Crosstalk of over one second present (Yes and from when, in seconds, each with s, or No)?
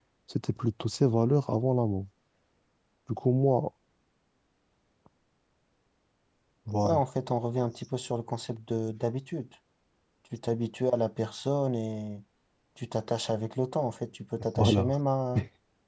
No